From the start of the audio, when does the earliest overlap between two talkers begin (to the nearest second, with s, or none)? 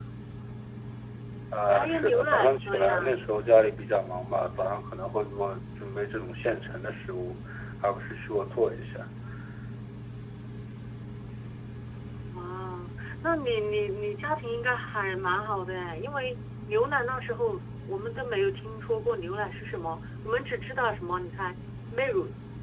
2 s